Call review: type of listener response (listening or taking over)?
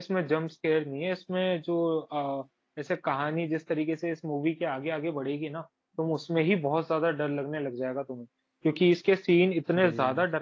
listening